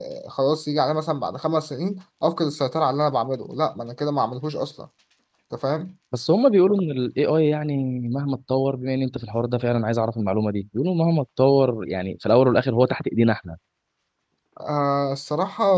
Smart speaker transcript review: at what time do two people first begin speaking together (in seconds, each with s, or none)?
none